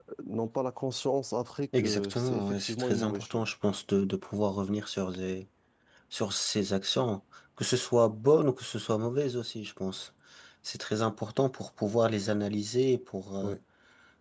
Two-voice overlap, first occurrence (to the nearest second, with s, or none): 2 s